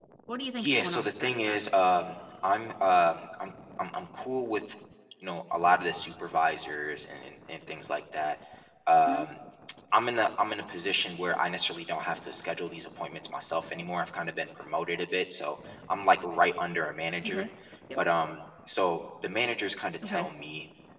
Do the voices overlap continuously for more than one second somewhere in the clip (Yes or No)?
Yes